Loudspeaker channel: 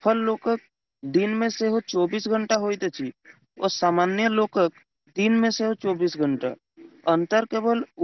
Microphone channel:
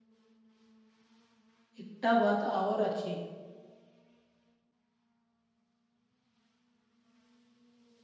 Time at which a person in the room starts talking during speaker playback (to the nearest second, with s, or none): 2 s